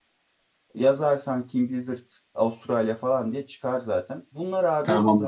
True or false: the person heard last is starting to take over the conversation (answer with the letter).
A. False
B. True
A